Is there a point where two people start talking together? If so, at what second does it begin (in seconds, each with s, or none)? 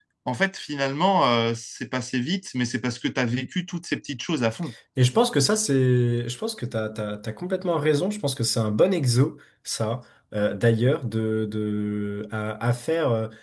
none